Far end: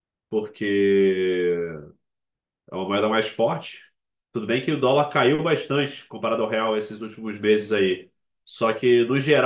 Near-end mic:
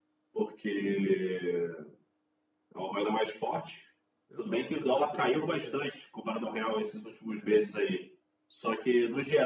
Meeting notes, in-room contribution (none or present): present